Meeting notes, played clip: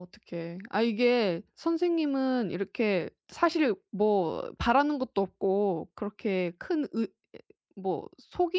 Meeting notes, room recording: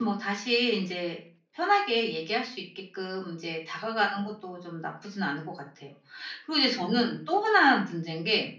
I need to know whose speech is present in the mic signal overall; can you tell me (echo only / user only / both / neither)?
user only